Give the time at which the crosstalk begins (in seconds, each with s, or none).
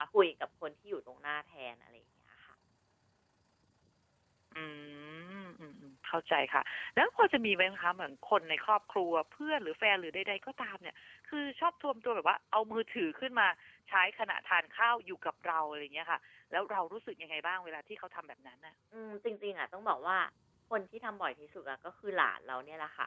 none